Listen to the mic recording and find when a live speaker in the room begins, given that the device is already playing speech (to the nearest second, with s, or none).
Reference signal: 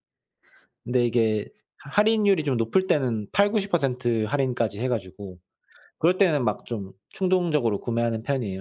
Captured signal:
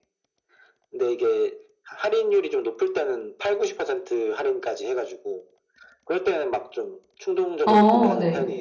8 s